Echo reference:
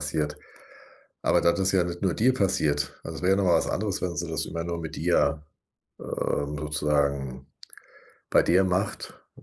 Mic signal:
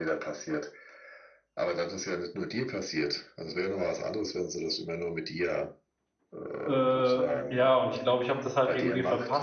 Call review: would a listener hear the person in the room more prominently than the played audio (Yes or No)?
Yes